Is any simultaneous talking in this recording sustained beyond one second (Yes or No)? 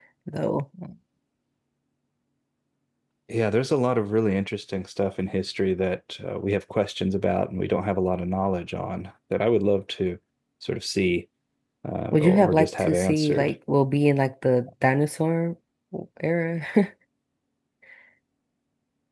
Yes